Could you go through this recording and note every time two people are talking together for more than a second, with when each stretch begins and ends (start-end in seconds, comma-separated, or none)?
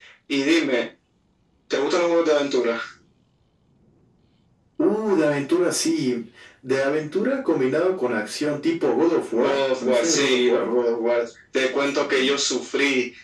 9.3-10.7